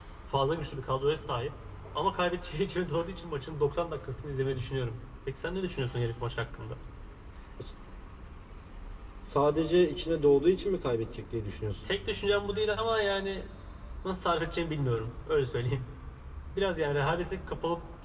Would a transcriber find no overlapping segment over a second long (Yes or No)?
Yes